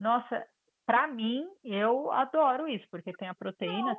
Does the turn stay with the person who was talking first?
Yes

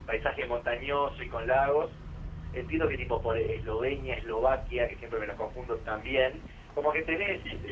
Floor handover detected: No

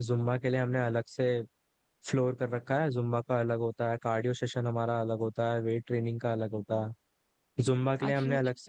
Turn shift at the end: No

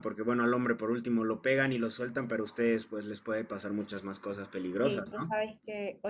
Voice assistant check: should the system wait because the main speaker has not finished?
No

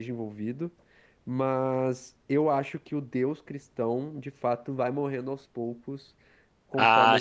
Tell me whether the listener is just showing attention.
No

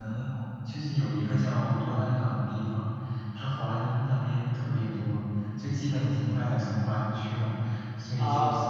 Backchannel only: Yes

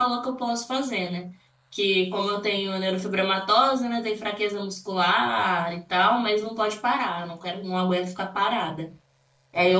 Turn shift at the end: No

